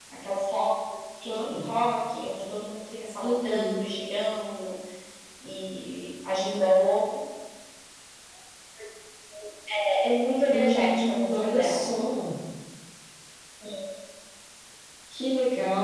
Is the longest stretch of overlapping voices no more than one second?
No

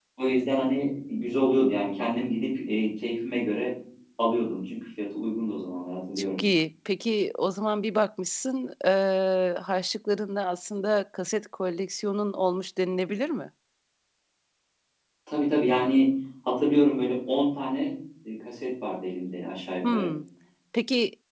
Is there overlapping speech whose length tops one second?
No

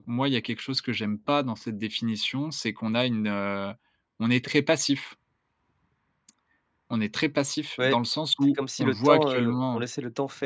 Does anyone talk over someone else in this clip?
Yes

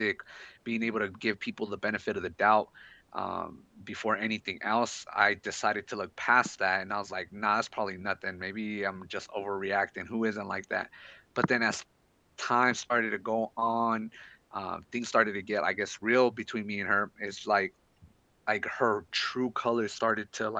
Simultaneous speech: No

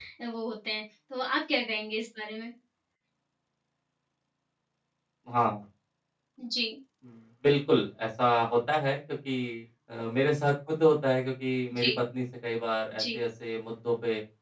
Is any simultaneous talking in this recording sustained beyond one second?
No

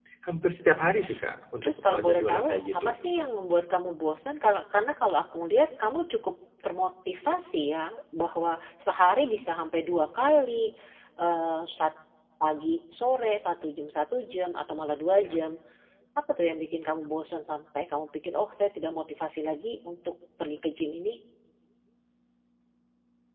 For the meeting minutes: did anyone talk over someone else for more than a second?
Yes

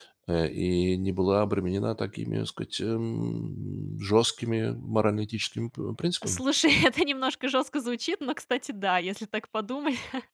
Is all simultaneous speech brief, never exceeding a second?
Yes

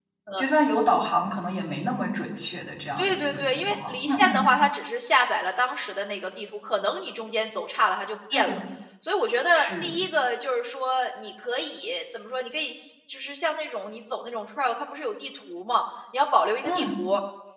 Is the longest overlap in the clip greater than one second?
Yes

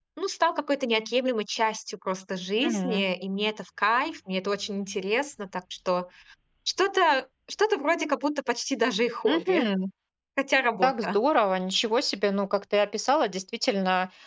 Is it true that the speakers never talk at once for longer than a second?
Yes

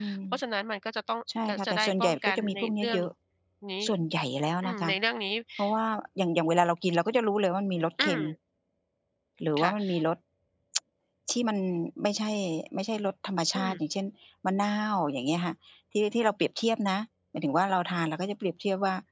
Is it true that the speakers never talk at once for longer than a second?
No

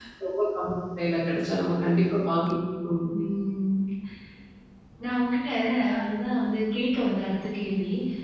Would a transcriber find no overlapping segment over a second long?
Yes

